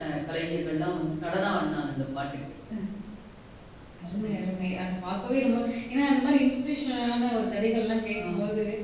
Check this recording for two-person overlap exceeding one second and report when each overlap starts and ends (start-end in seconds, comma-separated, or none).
none